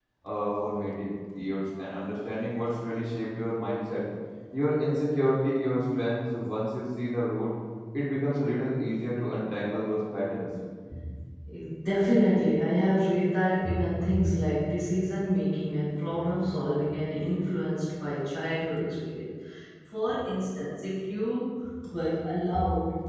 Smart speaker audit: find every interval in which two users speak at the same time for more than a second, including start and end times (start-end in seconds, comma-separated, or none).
none